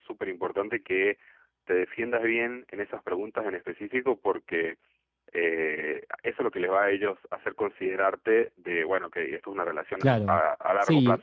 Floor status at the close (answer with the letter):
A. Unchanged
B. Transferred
B